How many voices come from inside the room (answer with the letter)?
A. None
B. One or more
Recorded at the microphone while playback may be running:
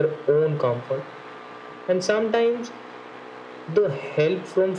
A